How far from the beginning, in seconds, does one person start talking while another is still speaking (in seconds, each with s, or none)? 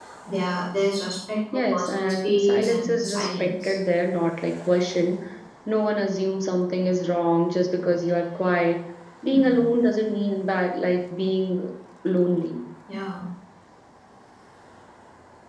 1.7 s